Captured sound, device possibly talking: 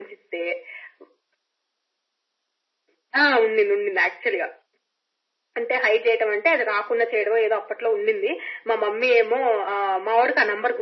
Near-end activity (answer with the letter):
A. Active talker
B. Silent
B